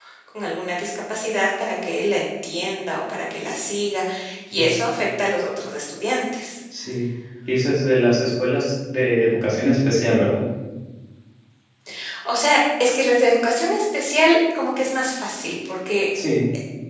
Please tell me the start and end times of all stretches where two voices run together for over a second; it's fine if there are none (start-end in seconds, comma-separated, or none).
none